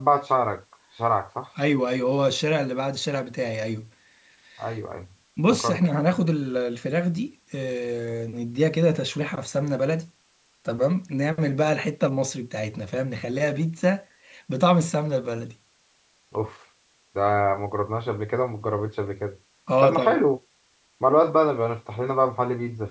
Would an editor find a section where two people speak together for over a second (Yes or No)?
No